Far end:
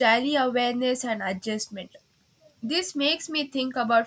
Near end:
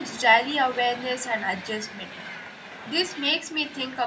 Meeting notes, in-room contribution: none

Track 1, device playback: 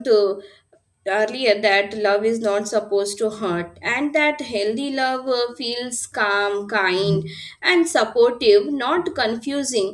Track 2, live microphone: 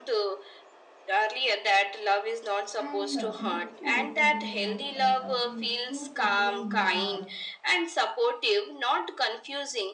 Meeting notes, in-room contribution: present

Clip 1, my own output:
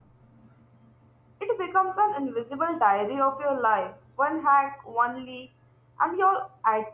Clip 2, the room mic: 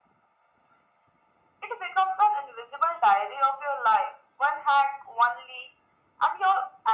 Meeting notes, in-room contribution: none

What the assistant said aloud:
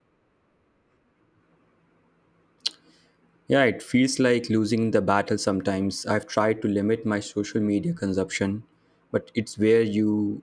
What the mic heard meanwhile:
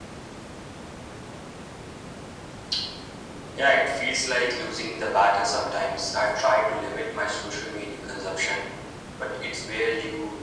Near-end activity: none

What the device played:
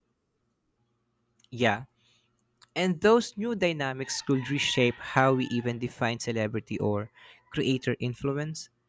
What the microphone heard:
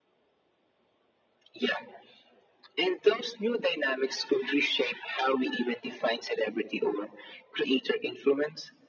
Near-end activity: none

